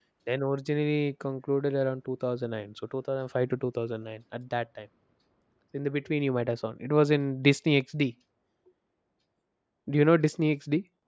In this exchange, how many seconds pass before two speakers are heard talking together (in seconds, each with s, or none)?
none